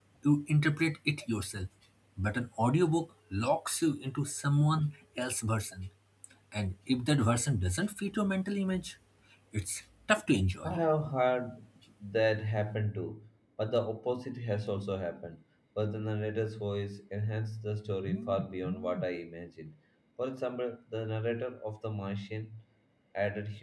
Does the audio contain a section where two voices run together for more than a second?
No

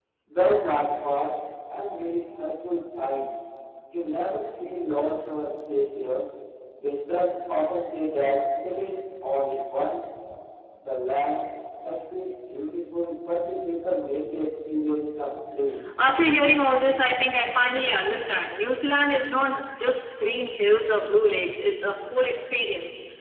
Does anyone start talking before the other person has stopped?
No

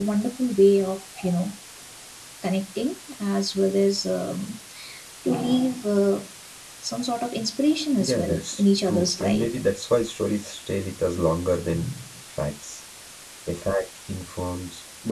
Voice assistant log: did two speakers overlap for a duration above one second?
Yes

